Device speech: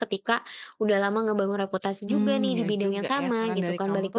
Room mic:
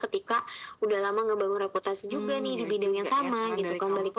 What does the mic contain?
echo only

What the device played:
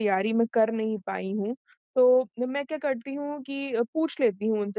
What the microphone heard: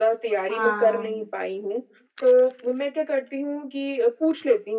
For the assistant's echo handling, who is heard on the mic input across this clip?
both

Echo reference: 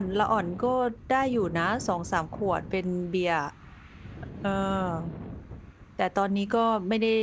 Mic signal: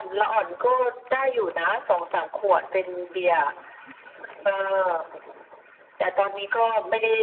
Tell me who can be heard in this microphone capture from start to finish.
echo only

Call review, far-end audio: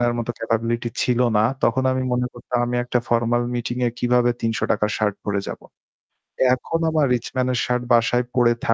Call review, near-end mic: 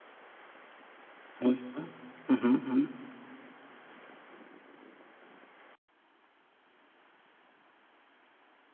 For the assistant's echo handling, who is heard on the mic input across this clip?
user only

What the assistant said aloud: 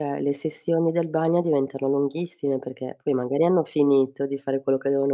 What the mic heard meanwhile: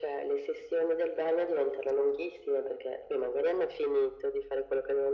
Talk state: echo only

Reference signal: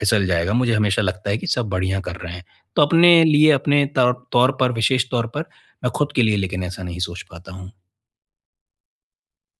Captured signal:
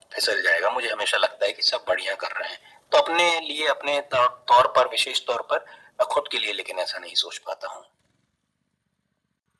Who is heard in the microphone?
echo only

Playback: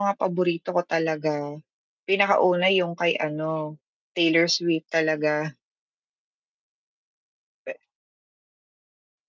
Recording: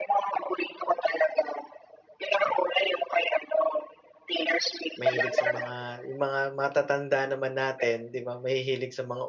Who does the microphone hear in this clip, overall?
both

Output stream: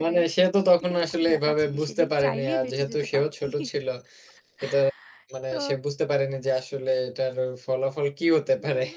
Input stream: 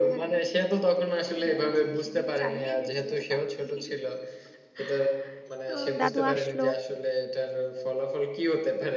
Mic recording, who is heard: both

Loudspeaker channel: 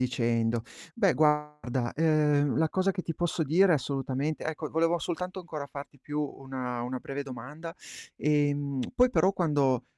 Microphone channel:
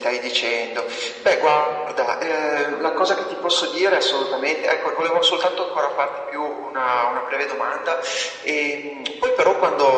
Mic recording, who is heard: echo only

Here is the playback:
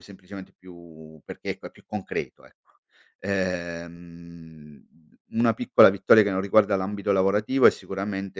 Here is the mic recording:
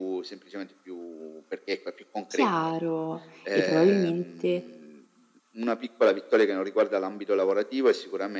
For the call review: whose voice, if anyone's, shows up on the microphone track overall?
both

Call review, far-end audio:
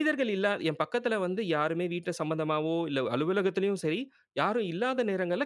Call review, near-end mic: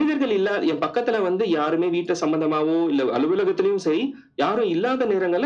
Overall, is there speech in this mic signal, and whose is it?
echo only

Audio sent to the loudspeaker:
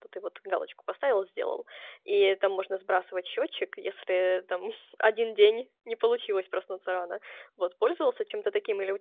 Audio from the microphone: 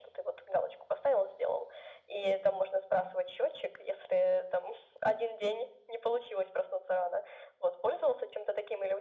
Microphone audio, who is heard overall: echo only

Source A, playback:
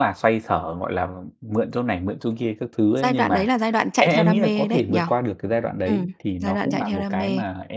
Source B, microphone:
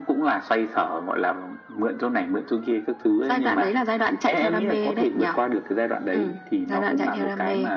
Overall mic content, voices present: echo only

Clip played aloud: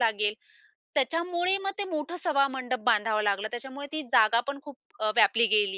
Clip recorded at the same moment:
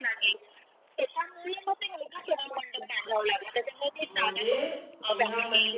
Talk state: both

